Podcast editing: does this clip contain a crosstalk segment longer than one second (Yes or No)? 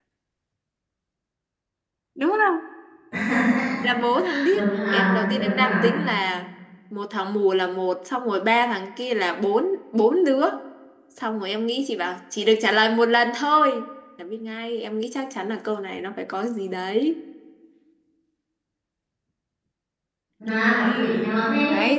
Yes